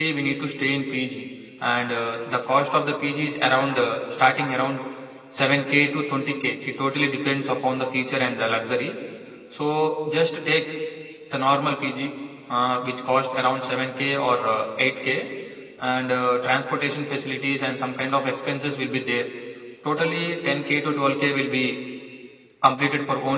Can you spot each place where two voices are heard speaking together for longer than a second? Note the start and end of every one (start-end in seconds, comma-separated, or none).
none